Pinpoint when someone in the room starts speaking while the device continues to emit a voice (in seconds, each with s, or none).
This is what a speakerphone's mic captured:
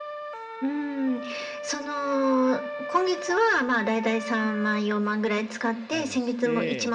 5.9 s